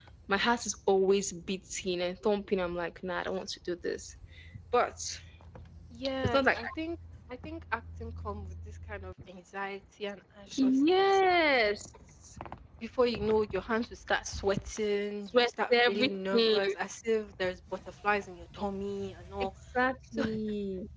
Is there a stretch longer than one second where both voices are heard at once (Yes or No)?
Yes